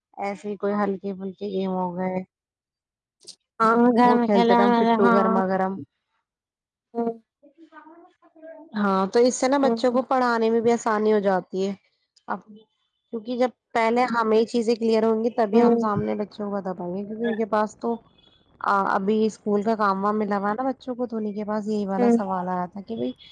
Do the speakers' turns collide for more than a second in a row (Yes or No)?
Yes